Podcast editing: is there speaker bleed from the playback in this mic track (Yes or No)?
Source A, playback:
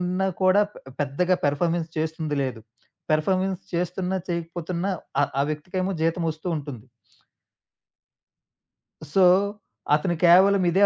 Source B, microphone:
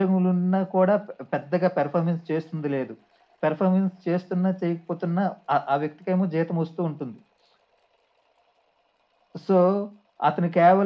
Yes